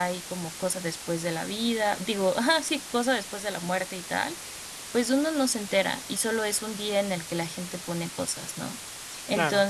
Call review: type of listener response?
listening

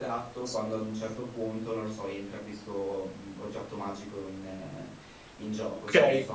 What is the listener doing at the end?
taking over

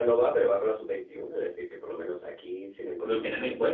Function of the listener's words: taking over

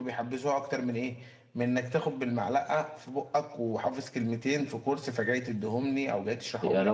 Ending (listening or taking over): taking over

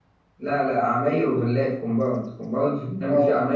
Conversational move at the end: listening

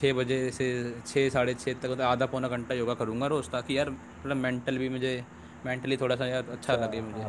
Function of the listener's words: taking over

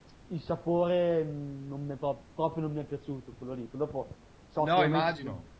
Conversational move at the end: taking over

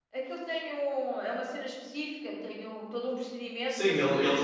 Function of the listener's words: taking over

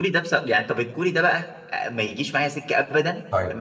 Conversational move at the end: listening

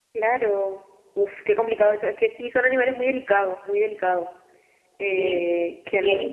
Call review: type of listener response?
taking over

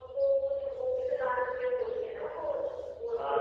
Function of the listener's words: taking over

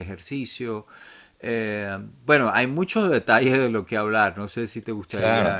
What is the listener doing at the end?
taking over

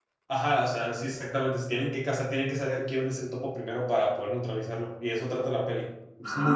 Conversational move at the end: taking over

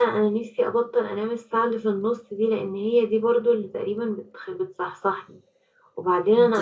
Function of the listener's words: listening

